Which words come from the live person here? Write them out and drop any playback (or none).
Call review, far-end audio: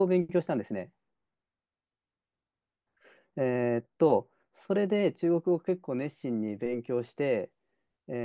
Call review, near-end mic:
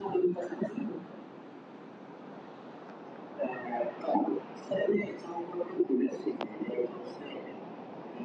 none